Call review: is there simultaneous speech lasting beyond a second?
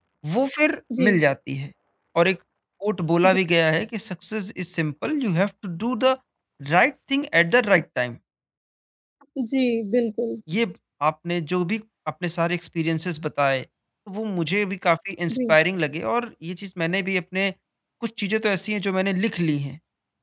No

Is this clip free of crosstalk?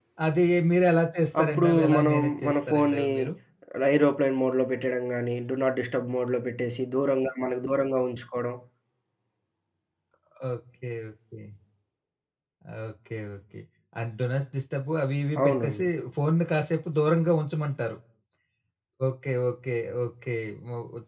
No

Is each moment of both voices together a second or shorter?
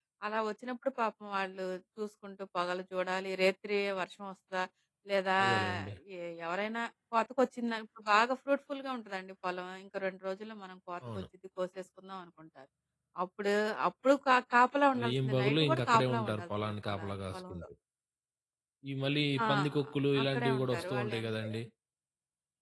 No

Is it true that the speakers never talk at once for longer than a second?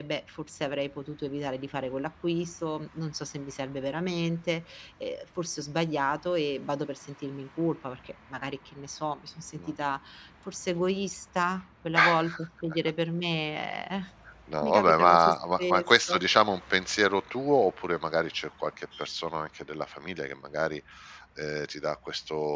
No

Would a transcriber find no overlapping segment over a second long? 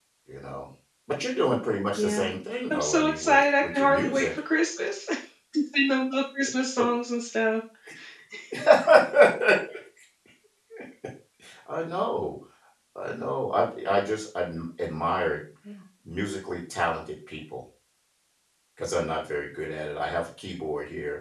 No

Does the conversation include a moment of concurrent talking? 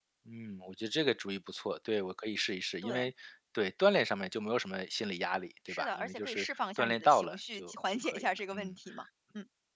Yes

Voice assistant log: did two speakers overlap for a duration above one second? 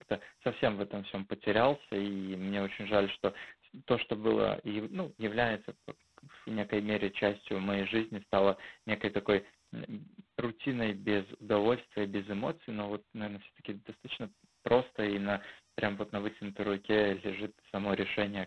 No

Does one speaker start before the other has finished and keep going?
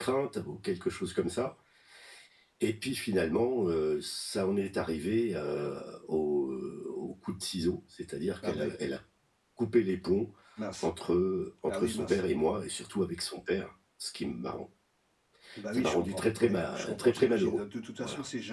Yes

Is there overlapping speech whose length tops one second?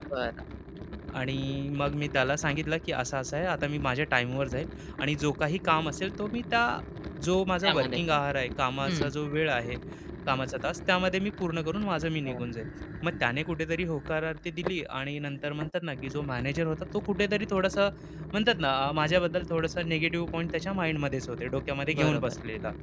No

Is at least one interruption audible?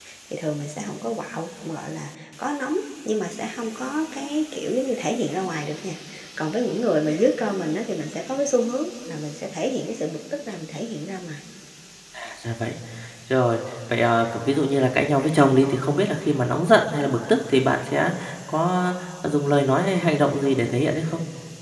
No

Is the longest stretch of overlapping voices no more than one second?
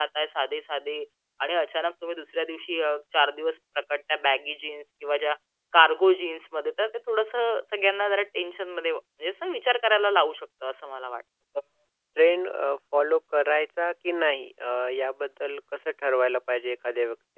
Yes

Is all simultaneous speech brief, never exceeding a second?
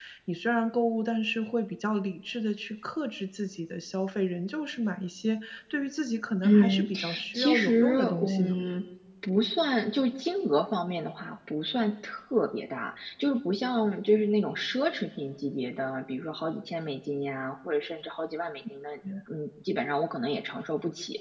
No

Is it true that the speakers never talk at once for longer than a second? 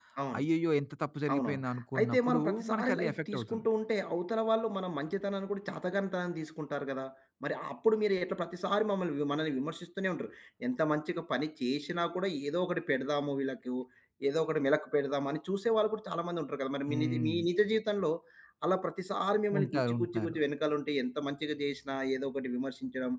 No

